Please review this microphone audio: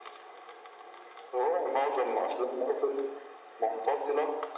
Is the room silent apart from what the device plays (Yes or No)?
Yes